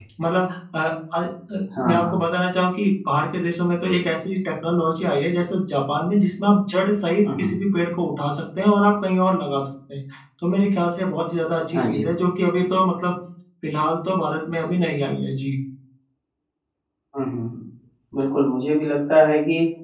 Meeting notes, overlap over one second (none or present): none